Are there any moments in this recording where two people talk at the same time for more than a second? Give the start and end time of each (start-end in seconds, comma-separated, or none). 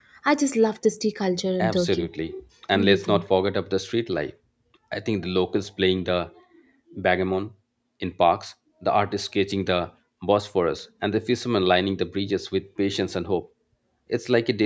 none